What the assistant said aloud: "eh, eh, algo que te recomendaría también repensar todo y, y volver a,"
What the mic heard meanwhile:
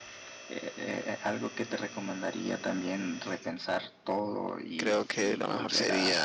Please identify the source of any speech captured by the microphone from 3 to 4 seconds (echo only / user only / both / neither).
echo only